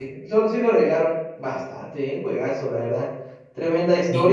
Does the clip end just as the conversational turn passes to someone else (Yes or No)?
No